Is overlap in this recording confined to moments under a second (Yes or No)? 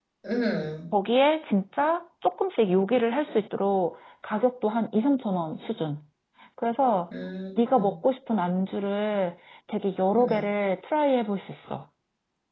Yes